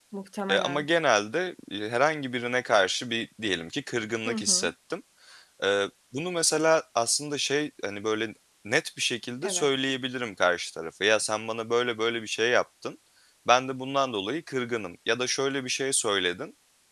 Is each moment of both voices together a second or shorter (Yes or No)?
Yes